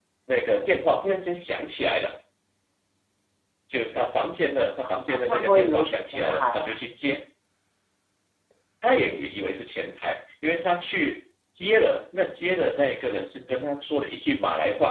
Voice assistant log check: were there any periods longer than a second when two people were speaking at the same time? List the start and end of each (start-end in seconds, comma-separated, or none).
5.1-6.8